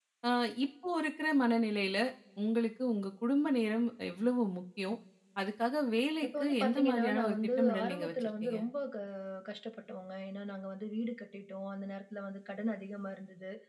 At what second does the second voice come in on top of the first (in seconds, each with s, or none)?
6.2 s